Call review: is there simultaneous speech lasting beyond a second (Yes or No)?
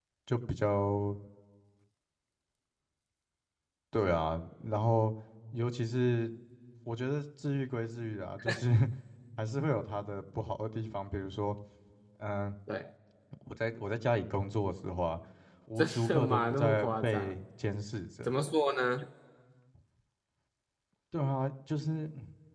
Yes